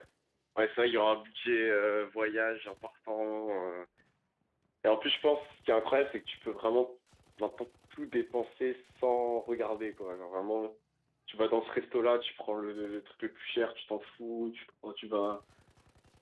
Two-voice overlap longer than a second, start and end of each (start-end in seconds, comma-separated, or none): none